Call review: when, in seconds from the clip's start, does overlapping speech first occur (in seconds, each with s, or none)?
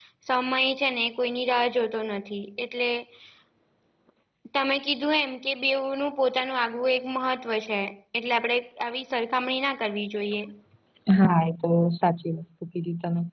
none